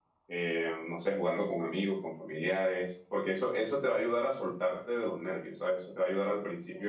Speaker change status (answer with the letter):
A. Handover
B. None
B